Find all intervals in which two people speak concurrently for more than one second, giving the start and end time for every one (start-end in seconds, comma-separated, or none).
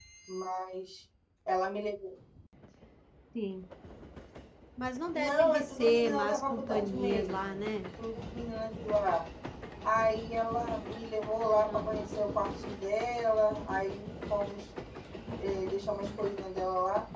5.1-7.6